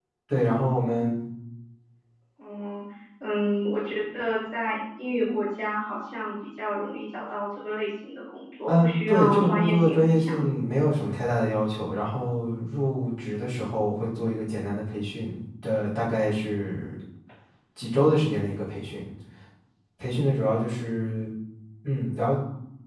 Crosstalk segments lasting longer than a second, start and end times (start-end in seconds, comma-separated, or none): 8.7-10.5